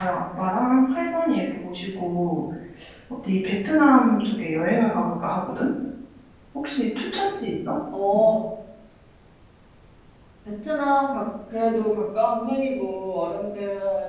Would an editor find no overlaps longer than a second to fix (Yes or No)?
Yes